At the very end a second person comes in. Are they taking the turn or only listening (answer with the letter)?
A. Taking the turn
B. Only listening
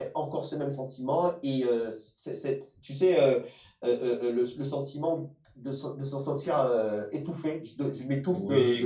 A